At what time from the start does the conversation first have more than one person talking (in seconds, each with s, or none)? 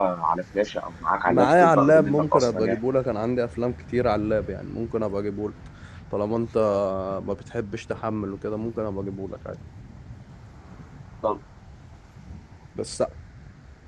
1.3 s